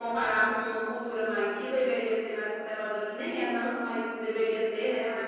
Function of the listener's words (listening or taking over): listening